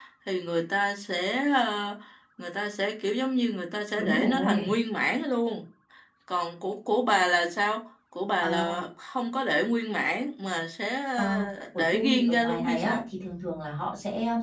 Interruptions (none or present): present